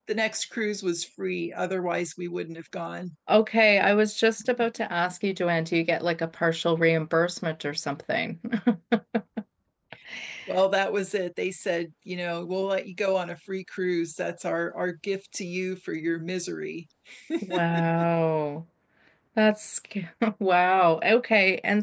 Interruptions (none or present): none